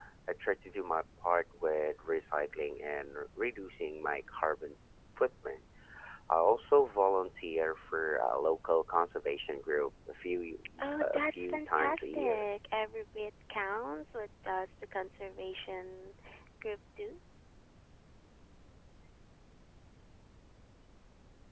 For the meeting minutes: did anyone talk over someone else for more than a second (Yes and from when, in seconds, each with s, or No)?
Yes, from 11.0 s